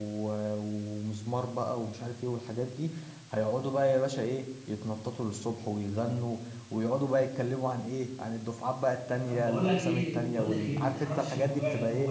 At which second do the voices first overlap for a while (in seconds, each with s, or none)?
9.3 s